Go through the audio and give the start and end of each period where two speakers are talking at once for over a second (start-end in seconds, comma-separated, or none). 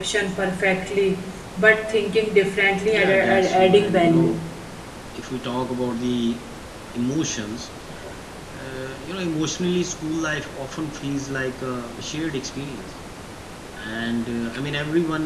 2.9-4.4